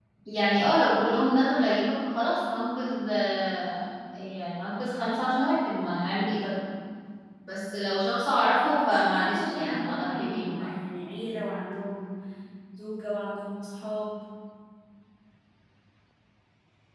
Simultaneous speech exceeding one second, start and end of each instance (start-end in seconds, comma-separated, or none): 8.8-10.6